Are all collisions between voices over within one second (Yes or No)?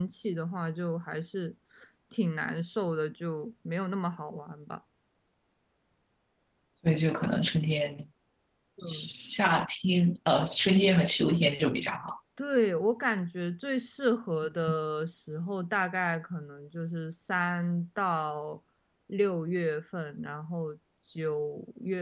Yes